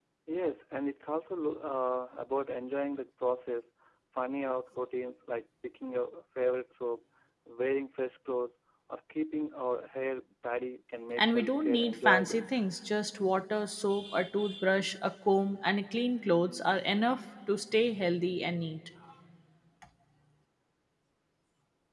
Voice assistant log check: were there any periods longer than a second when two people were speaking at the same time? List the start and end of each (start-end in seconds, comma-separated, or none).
11.2-12.4